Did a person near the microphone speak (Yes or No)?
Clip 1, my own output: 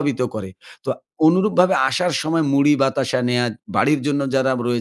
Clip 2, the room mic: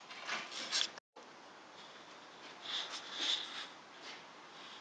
No